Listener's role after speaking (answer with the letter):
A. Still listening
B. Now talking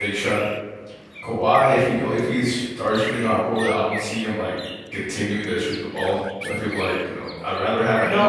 B